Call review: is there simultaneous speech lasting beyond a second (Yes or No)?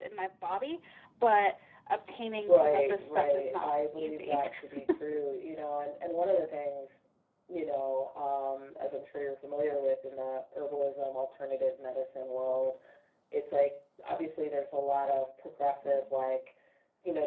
Yes